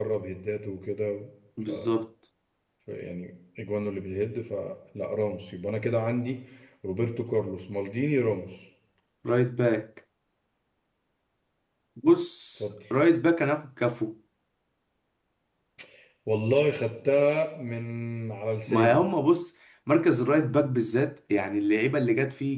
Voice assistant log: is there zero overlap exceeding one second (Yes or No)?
Yes